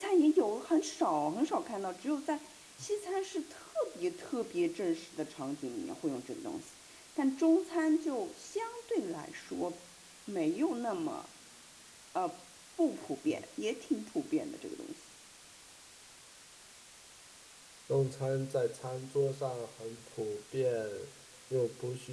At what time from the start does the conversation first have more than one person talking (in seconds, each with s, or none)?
none